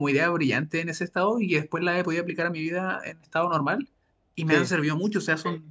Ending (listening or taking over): listening